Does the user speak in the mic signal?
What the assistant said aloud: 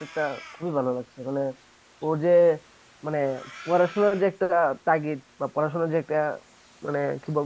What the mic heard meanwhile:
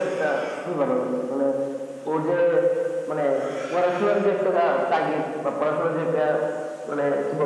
No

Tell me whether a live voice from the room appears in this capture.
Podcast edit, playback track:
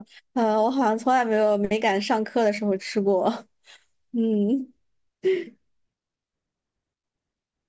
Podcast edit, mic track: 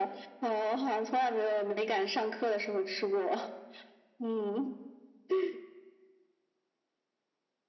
No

